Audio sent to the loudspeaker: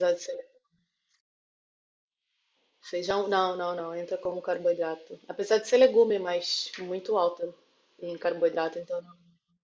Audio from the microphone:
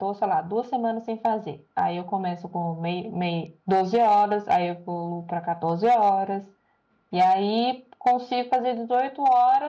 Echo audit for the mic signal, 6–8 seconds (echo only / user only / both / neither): user only